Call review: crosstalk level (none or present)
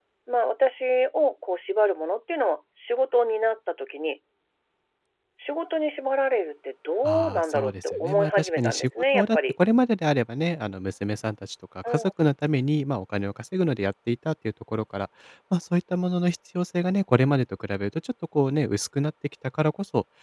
present